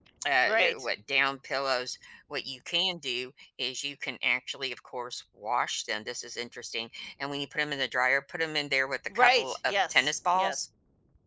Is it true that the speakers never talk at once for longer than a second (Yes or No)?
No